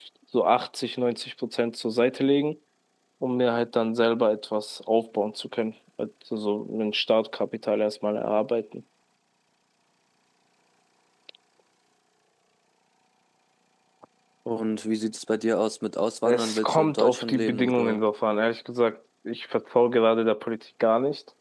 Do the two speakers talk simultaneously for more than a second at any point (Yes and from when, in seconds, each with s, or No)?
Yes, from 16.2 s